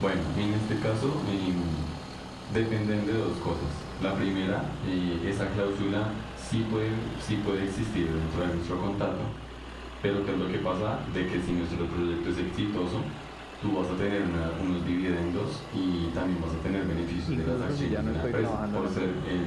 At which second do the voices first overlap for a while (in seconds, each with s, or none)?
17.3 s